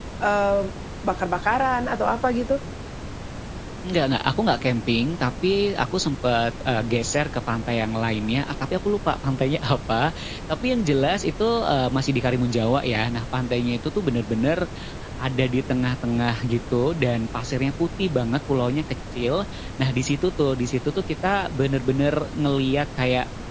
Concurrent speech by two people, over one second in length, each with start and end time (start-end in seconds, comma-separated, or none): none